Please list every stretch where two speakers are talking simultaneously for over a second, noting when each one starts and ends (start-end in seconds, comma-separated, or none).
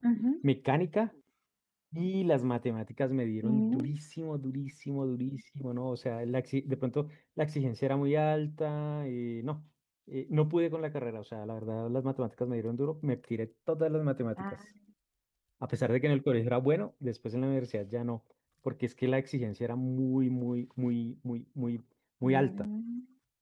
none